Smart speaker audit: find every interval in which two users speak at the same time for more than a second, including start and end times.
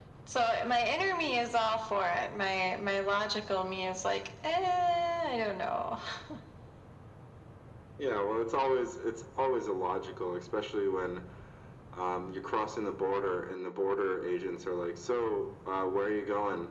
none

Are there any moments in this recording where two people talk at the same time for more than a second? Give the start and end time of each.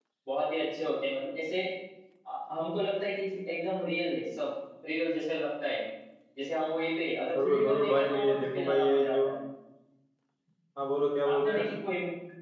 7.4-9.3

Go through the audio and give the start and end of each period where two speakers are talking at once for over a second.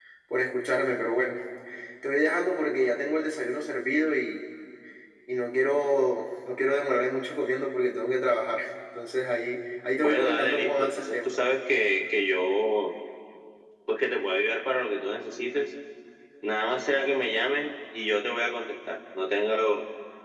10.0-11.3

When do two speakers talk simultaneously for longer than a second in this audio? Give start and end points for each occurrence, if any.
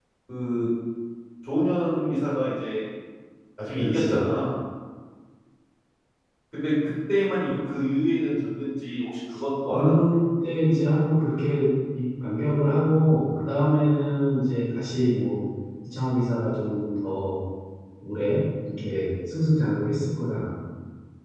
none

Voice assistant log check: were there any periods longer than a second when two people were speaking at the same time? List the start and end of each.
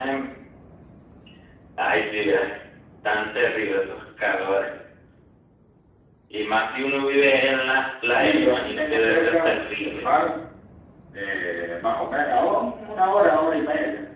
8.2-10.0

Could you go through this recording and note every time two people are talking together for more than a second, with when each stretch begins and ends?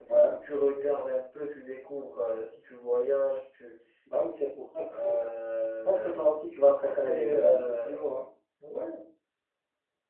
6.6-8.0

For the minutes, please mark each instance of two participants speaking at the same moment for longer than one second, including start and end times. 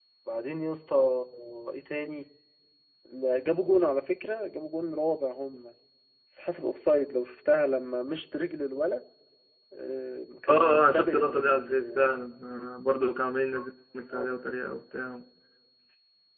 10.5-12.1

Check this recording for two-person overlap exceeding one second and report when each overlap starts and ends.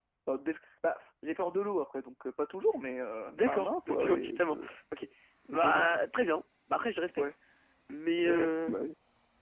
3.3-4.7

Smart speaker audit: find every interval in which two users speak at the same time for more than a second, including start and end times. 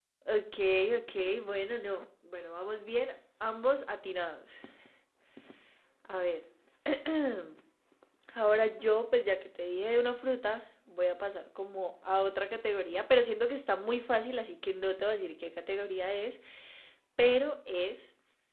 none

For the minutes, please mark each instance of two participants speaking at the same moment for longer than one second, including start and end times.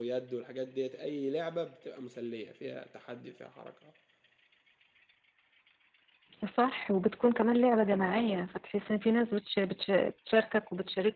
none

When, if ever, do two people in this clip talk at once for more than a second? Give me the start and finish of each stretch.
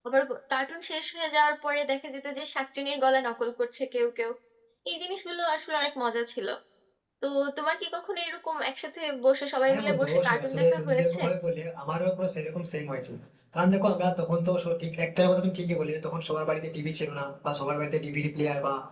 9.7-11.2

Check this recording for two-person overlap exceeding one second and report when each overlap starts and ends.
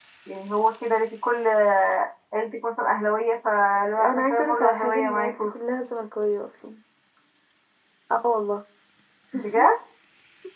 4.0-5.5

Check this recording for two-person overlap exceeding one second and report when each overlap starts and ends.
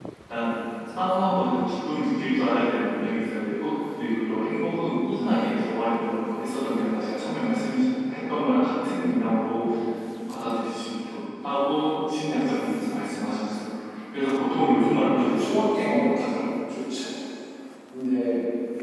14.9-16.4

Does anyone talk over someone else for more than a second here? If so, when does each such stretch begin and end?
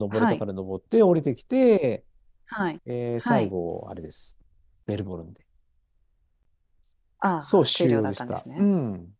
7.4-8.6

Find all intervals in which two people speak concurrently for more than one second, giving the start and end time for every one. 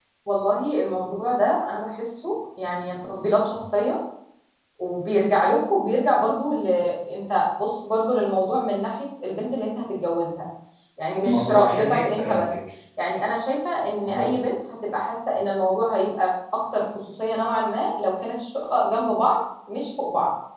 11.2-12.5

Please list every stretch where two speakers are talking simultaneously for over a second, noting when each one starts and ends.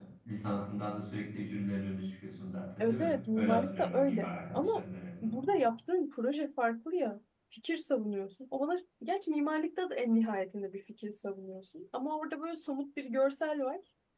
2.8-4.8

